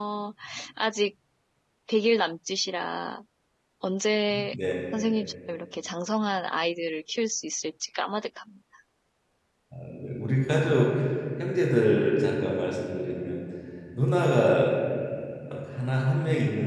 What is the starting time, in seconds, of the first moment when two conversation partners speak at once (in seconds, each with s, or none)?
none